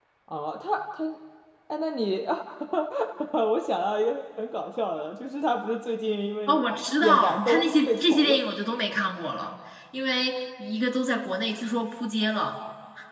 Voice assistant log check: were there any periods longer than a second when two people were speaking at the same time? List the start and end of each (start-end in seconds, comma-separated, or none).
7.0-8.4